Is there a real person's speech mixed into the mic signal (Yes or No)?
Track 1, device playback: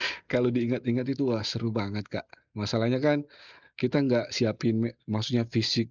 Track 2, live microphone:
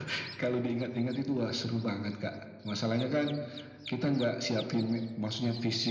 No